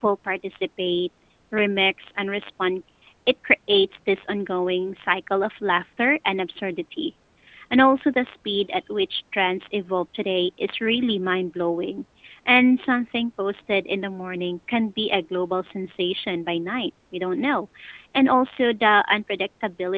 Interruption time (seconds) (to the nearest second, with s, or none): none